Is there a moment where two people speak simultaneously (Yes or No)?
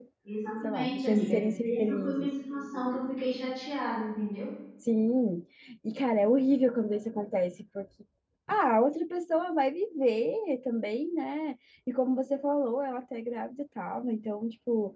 Yes